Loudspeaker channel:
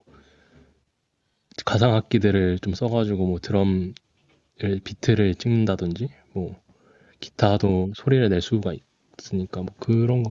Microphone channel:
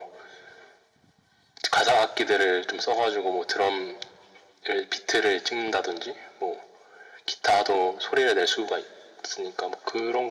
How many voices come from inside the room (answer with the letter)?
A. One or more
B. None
B